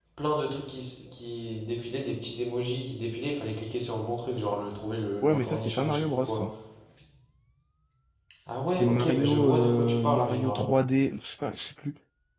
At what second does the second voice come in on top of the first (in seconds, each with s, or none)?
5.2 s